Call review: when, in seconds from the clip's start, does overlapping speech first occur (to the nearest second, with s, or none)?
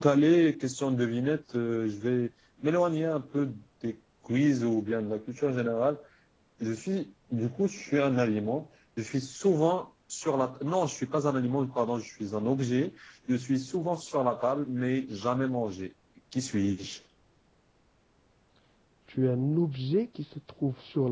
none